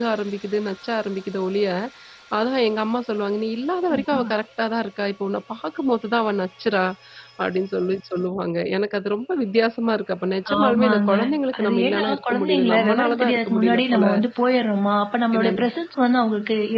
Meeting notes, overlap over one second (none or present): present